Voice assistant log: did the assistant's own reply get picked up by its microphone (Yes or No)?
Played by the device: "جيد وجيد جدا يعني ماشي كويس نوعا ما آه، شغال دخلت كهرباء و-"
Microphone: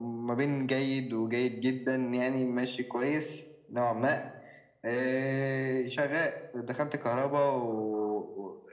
Yes